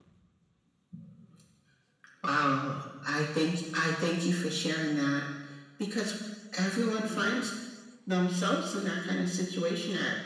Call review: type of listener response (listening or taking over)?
listening